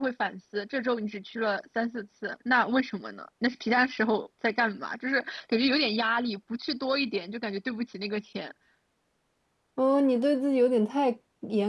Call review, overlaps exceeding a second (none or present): none